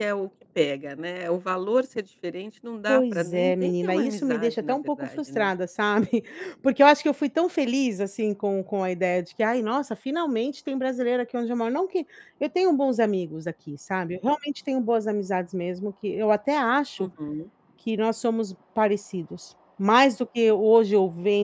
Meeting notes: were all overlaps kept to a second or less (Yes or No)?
No